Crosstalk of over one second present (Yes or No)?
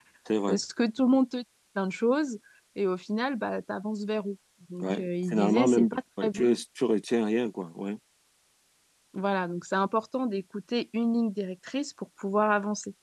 Yes